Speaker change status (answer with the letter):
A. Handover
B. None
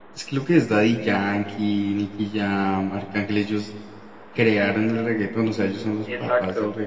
A